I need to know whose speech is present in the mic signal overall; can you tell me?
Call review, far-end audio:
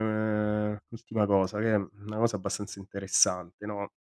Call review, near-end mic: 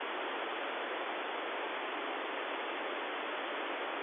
neither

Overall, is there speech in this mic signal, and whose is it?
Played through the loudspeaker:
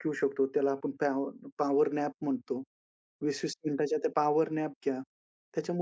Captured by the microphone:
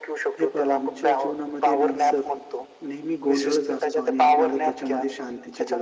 both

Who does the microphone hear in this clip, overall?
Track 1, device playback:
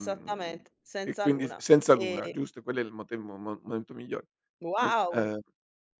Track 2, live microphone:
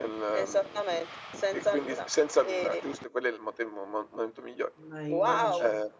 both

